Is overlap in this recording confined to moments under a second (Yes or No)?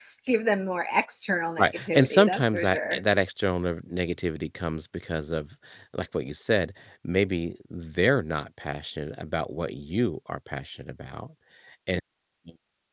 No